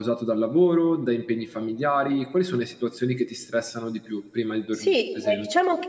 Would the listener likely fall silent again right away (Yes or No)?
No